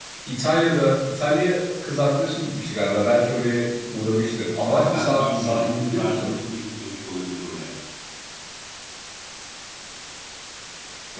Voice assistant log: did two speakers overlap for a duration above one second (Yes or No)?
Yes